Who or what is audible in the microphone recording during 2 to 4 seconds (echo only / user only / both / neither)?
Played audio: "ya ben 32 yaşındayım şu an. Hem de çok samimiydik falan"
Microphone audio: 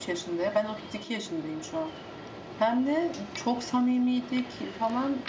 echo only